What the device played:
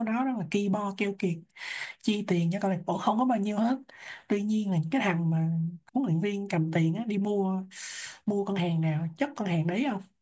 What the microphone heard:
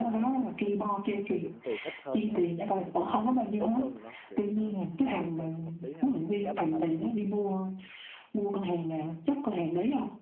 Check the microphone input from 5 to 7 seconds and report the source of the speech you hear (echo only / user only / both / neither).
both